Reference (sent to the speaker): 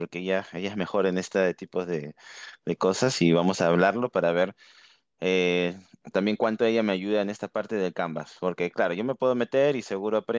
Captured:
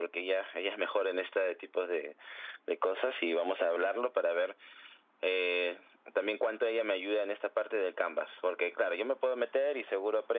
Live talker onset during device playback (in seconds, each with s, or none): none